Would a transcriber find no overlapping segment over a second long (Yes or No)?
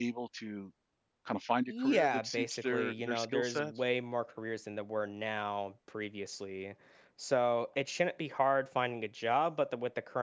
No